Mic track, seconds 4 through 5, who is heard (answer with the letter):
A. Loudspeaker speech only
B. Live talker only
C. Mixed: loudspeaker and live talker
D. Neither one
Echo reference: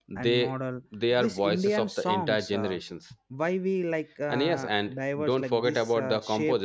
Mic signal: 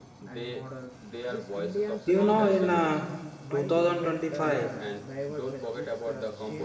C